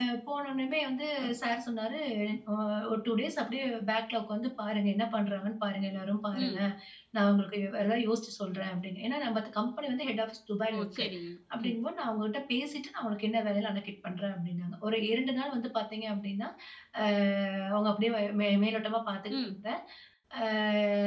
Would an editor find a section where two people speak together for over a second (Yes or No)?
No